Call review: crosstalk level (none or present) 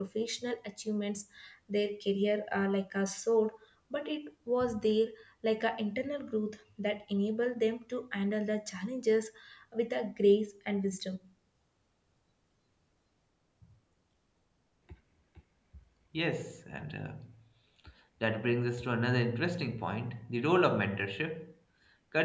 none